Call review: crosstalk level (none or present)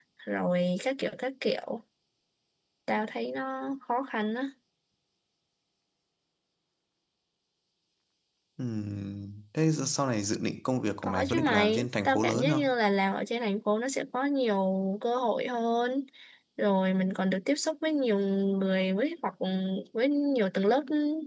present